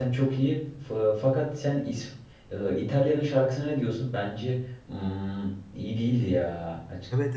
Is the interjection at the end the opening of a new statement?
Yes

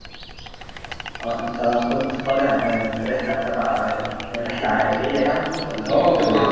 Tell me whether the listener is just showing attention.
No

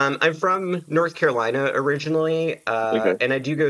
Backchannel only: Yes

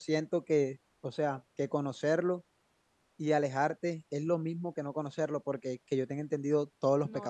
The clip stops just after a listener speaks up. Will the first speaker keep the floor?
No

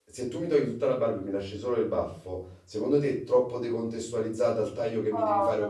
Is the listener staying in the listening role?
No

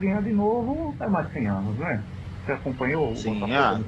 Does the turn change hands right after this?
Yes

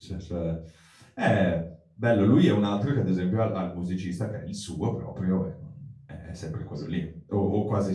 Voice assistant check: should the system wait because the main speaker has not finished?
Yes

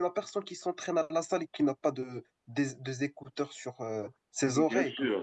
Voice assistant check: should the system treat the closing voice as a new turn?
Yes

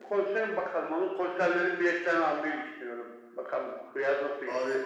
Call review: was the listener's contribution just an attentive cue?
No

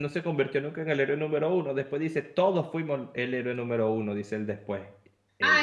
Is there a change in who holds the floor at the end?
Yes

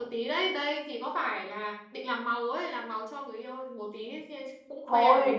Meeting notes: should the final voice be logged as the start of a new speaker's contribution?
Yes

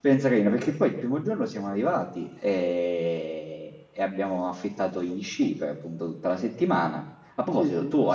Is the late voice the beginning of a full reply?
Yes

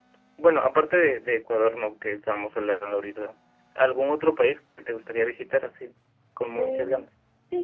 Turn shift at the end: Yes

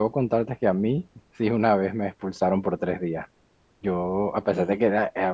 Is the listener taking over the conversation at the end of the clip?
No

